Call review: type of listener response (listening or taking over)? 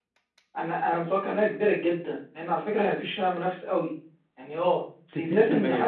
listening